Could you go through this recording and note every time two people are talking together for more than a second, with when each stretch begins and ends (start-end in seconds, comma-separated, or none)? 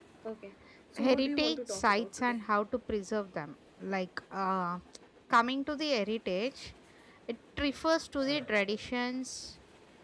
1.0-2.3